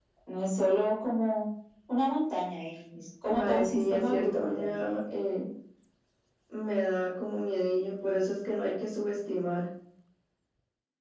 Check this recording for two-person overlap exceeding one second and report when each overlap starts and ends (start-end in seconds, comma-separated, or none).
3.3-4.9